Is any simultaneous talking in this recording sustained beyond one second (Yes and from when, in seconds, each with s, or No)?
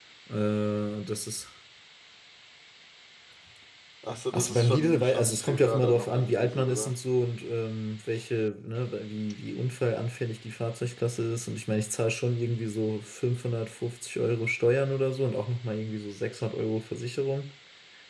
Yes, from 4.3 s